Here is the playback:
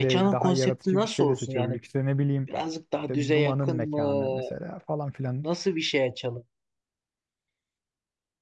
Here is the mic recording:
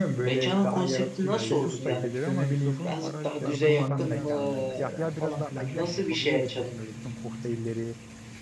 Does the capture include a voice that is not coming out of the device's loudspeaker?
Yes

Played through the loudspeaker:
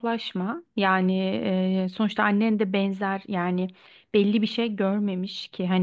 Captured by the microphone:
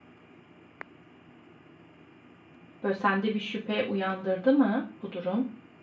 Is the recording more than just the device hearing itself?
Yes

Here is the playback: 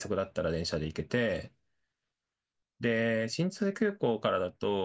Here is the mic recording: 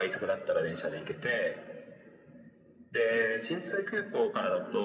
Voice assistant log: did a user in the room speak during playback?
No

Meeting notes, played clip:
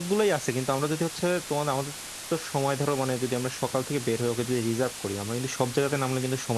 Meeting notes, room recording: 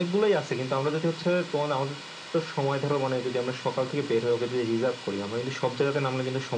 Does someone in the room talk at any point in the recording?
No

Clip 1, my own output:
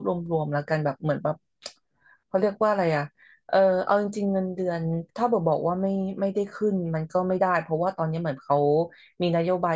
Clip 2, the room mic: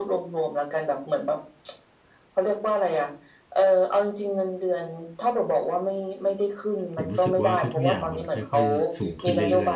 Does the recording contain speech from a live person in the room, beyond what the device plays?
Yes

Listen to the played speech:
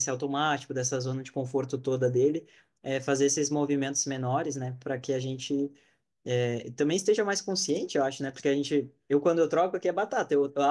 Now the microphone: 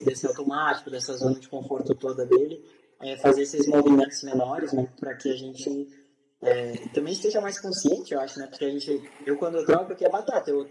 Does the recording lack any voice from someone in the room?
Yes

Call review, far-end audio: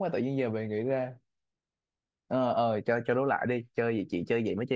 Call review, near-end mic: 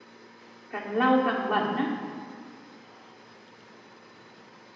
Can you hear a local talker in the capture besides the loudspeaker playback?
Yes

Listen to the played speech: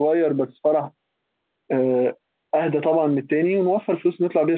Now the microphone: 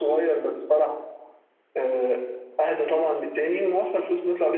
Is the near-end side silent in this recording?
Yes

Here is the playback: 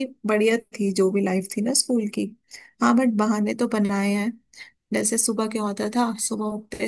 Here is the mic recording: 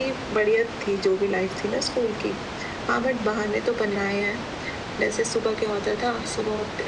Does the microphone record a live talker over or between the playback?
No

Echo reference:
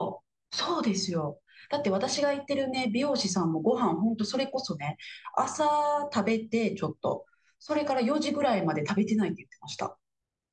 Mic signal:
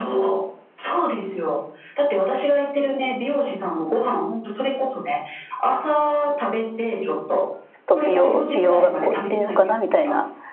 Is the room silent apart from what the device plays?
No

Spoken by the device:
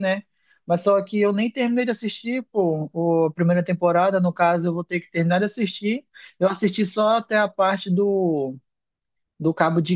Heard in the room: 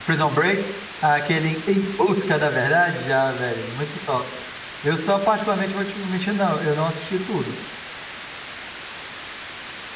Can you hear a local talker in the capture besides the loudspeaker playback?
Yes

